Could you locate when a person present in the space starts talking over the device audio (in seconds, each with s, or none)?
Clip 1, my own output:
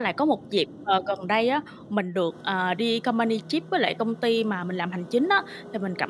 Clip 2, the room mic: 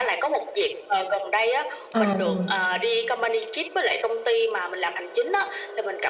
1.9 s